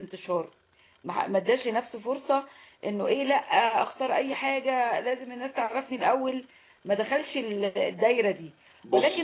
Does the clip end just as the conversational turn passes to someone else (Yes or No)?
No